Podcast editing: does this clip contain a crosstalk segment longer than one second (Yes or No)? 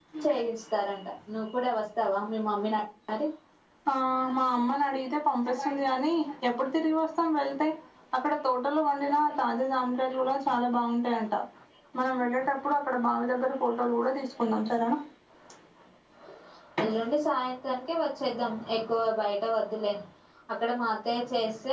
No